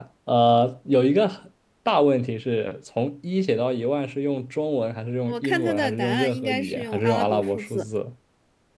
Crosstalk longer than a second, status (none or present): present